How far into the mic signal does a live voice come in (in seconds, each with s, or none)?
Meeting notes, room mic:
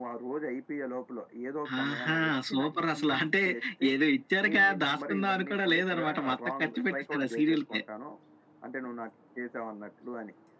none